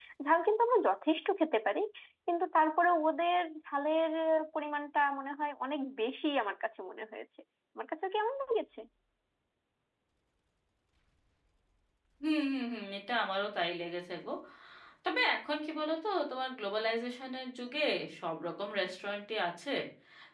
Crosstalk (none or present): none